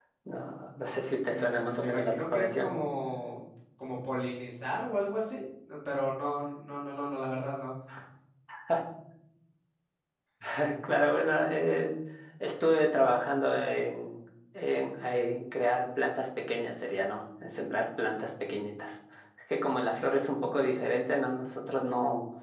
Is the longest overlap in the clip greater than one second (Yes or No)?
Yes